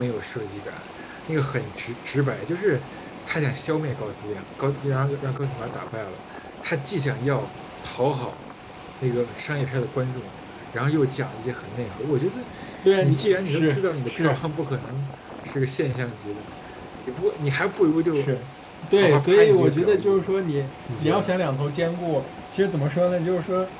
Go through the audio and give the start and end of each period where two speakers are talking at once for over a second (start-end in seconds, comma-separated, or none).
13.0-14.4, 18.9-20.3